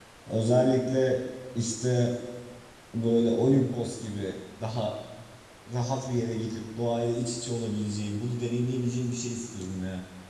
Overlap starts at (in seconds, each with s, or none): none